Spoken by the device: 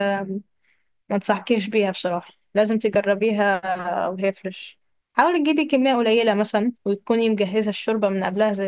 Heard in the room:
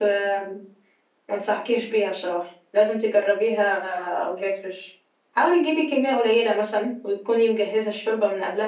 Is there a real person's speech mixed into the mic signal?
No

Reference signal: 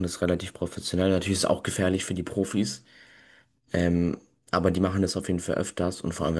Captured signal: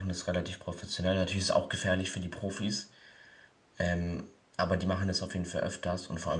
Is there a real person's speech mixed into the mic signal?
No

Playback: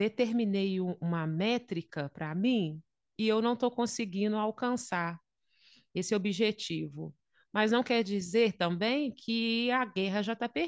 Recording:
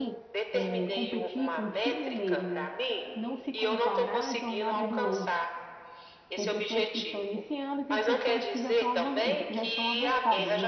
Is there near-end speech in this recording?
Yes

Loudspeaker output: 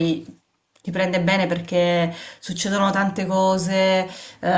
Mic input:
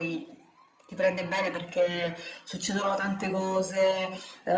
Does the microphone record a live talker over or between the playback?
No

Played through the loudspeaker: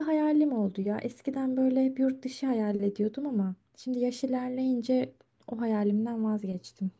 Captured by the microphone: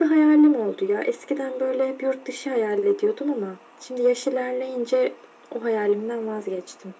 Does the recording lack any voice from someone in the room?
Yes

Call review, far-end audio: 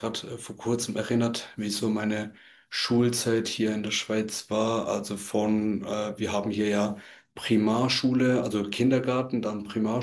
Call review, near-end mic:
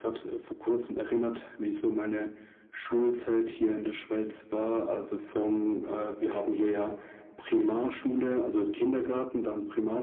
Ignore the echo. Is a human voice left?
No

